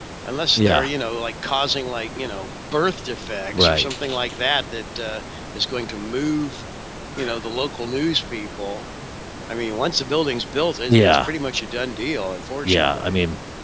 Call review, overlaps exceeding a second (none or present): none